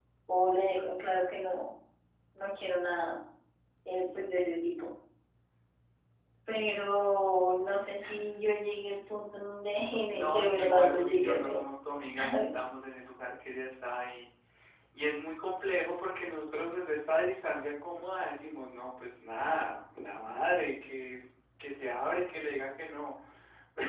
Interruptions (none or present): present